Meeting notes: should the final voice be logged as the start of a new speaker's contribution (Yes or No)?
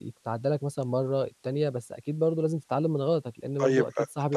Yes